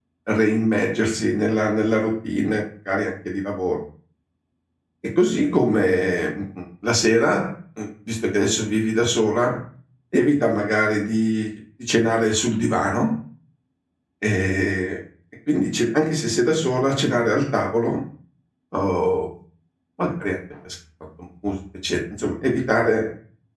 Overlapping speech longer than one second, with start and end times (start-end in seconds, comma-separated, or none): none